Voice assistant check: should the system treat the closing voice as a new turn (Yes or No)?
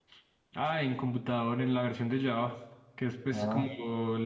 No